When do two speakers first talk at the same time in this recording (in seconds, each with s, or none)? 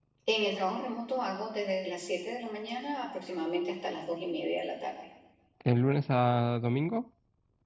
none